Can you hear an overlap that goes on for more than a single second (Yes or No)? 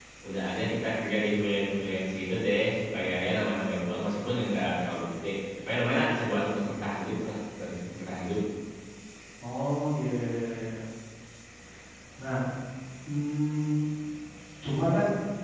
No